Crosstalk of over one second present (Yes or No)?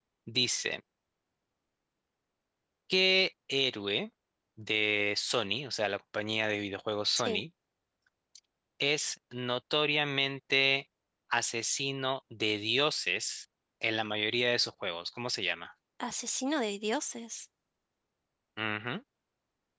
No